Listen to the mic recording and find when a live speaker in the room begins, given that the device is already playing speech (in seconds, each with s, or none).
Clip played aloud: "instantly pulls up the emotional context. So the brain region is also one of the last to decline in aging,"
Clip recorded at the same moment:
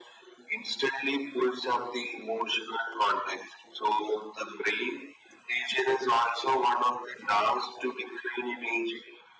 none